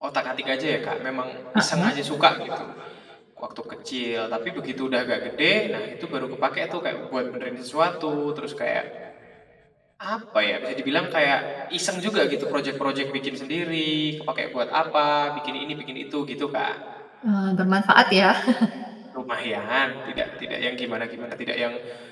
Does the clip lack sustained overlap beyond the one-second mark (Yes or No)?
Yes